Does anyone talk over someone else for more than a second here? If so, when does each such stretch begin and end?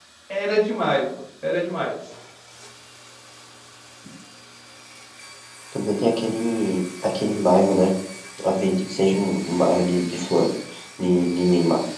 none

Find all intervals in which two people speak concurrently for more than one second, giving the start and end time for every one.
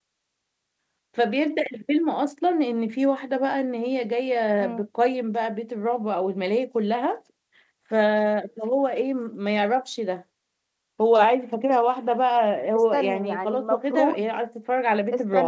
12.9-14.3

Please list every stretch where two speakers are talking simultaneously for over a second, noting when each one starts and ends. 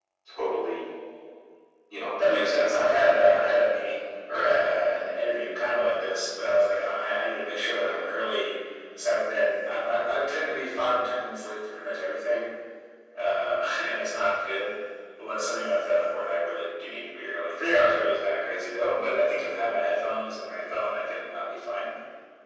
2.2-3.6

